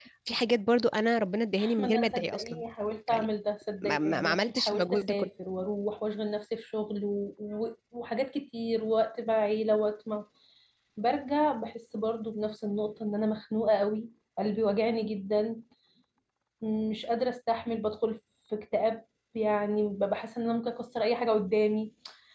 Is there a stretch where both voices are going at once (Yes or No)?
Yes